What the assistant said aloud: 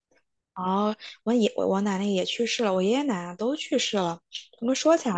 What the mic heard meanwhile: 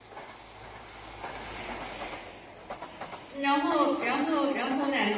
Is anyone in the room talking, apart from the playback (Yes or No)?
Yes